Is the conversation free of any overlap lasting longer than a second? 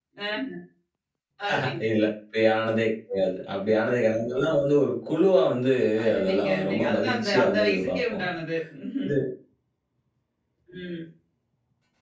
No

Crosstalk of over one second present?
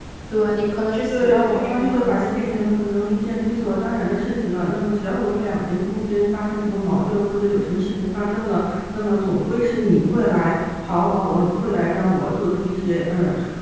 Yes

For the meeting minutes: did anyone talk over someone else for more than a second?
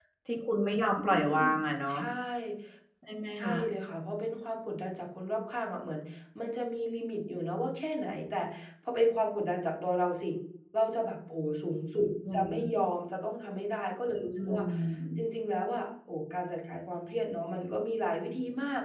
No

